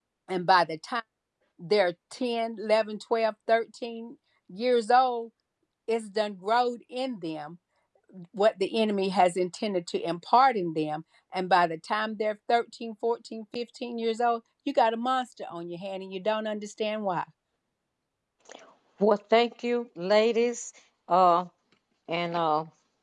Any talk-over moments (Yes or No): No